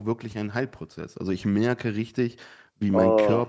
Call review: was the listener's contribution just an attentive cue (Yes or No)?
Yes